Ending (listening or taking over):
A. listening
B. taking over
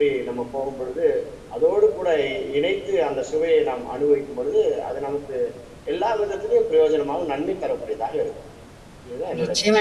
B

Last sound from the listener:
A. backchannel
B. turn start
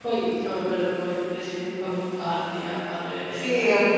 B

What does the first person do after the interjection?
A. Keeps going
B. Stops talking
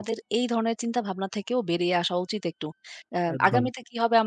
A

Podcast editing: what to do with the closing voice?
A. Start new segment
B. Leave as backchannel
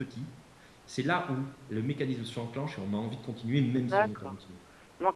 A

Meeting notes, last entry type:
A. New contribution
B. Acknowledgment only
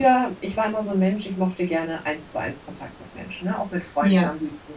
B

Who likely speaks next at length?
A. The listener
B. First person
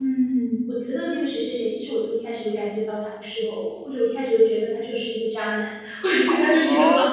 A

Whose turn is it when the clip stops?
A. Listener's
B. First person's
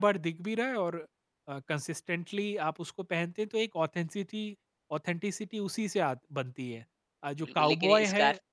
A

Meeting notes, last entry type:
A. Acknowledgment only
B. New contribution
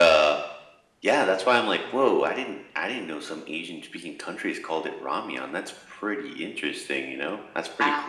B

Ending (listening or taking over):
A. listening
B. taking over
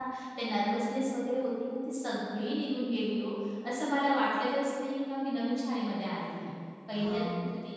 A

